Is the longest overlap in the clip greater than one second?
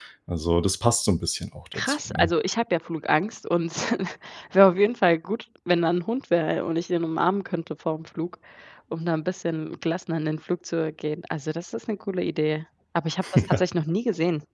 No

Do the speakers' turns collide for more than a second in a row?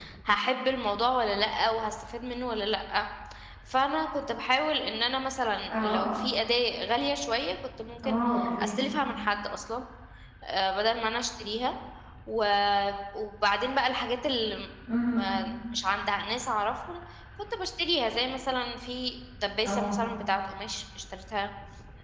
No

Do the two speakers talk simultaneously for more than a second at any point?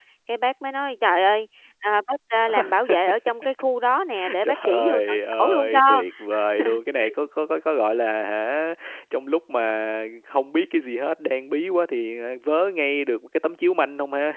Yes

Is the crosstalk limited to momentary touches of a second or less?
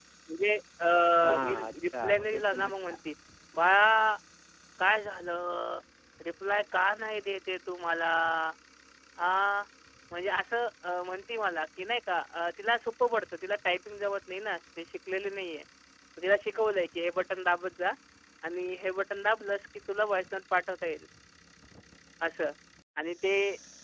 No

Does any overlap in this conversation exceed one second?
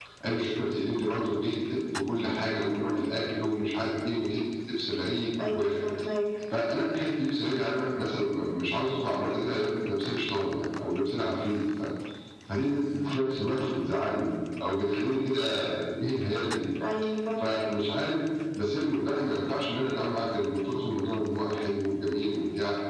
No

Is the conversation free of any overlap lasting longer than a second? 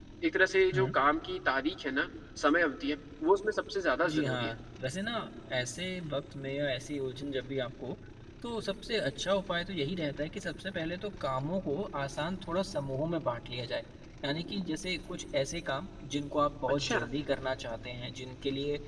Yes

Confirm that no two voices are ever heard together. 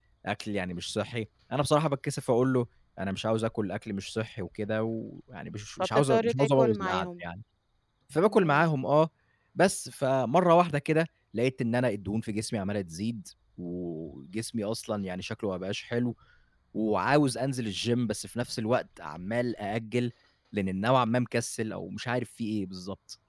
No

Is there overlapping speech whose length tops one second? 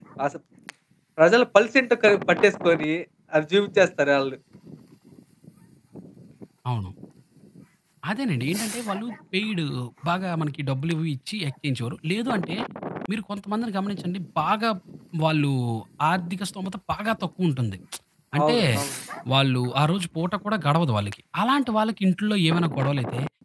No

